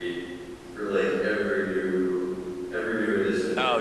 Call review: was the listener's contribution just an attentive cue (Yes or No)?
No